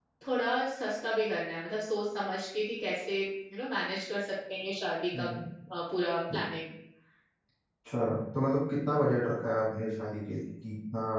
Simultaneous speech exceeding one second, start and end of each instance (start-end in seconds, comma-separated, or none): none